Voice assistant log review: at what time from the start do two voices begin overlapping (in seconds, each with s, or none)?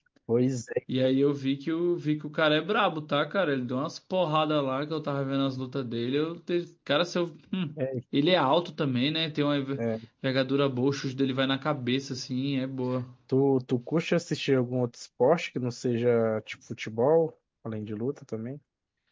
none